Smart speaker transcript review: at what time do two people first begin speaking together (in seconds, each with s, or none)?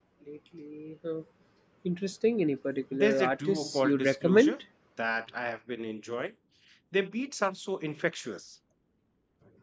2.9 s